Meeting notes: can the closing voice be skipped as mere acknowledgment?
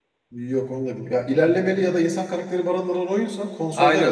No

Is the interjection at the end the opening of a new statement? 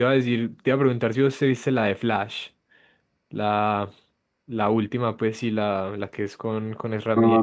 Yes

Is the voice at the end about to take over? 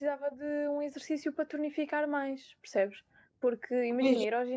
No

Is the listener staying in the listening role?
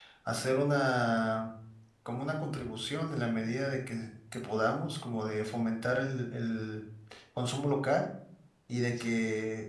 Yes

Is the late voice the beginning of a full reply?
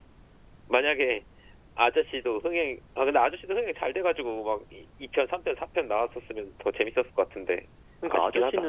Yes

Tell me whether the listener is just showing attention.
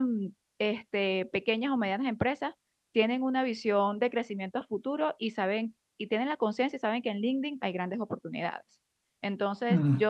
Yes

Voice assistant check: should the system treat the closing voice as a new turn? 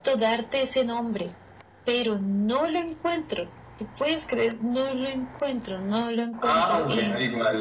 Yes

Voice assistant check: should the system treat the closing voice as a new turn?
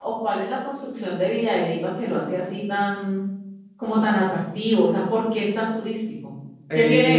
Yes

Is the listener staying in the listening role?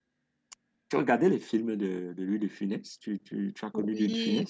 No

